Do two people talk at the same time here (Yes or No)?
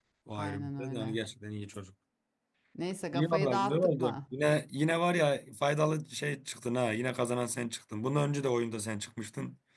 Yes